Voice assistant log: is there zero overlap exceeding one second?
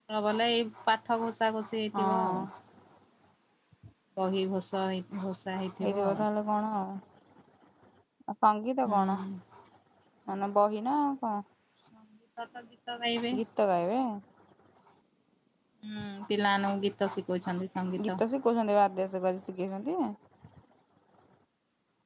Yes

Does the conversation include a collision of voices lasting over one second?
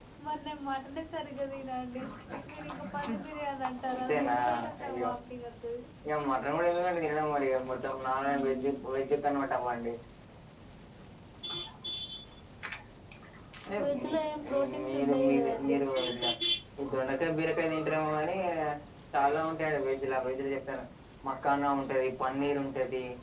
Yes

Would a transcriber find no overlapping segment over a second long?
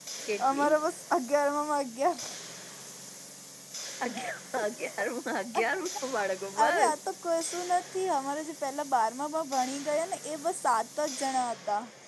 Yes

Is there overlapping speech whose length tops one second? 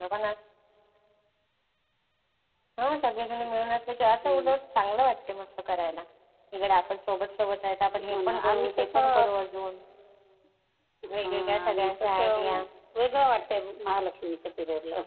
Yes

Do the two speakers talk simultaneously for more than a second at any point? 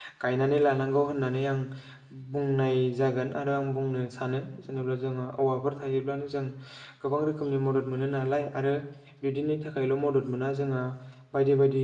No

